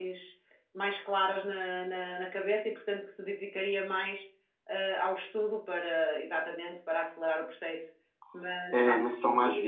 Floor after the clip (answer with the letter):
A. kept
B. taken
B